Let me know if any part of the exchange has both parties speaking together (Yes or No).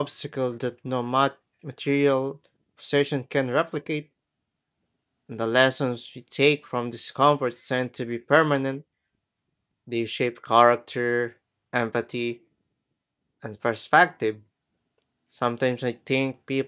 No